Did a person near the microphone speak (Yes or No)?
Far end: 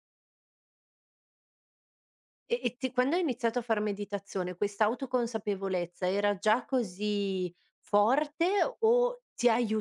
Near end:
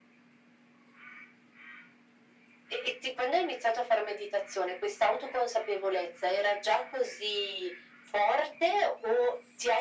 No